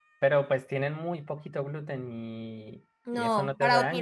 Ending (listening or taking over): taking over